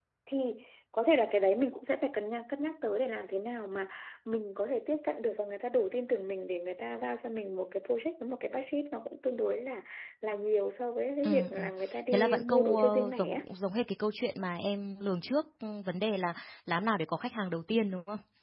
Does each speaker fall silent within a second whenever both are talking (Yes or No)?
No